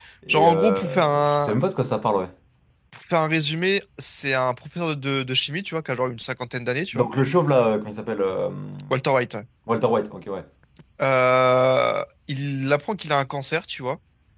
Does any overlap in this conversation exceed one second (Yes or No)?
Yes